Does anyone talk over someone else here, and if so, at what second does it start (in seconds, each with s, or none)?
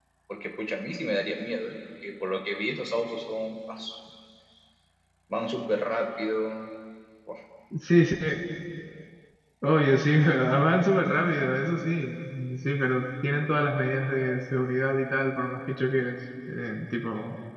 none